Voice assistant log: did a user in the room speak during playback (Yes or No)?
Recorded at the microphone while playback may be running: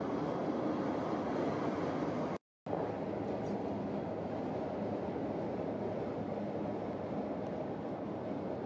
No